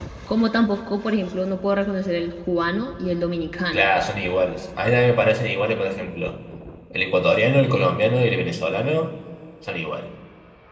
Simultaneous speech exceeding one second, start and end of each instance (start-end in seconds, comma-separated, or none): none